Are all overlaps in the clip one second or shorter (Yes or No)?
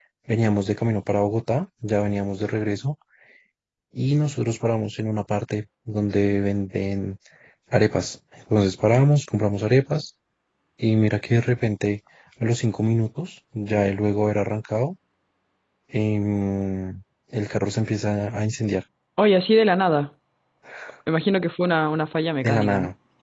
Yes